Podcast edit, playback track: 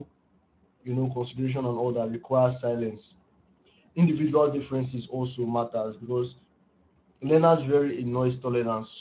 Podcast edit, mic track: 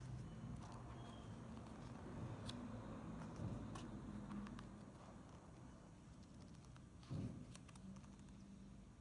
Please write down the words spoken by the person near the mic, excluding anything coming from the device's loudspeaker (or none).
none